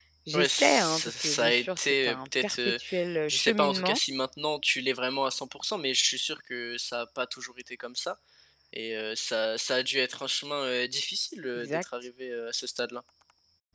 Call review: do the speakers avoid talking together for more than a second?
No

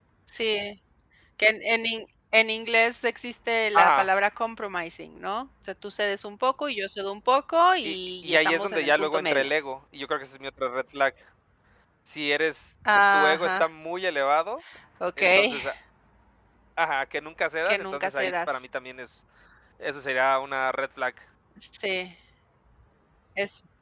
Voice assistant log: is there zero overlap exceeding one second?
No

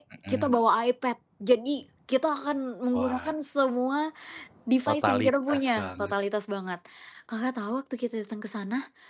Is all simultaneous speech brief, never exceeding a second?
No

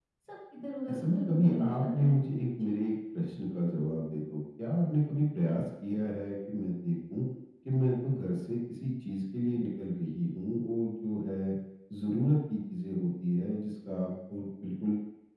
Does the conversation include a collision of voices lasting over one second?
Yes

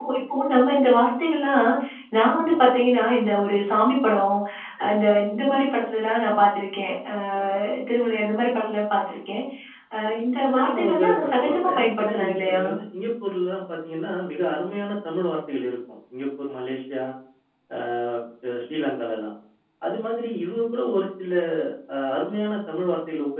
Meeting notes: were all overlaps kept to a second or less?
No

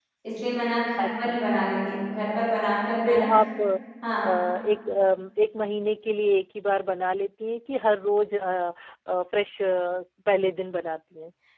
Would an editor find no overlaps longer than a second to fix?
Yes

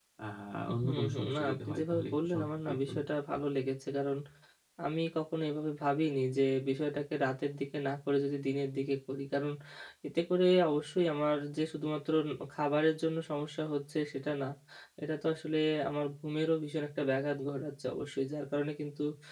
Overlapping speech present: Yes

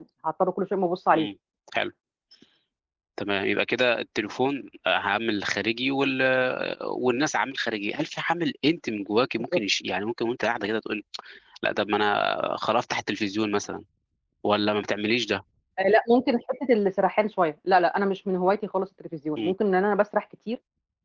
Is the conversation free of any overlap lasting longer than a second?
Yes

